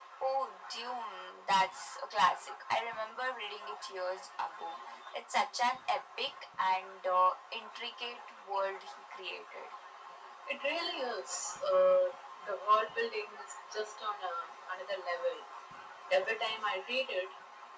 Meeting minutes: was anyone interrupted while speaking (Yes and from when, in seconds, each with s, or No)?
No